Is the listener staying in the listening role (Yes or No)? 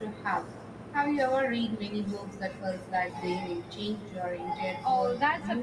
No